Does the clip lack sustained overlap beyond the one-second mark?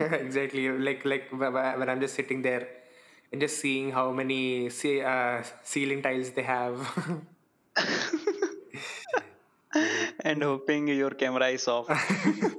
Yes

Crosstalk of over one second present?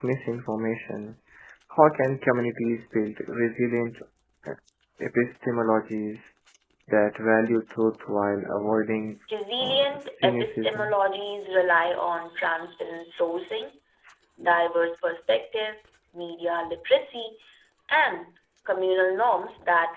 Yes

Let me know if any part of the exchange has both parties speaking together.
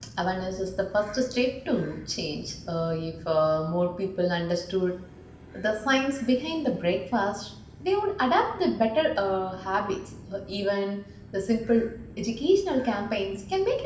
No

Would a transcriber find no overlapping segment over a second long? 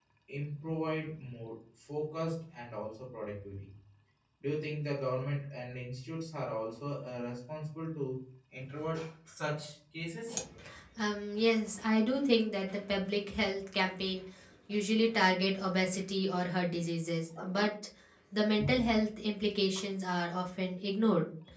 Yes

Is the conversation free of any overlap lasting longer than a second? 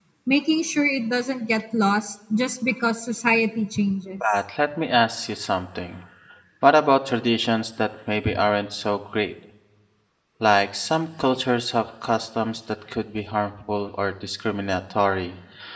Yes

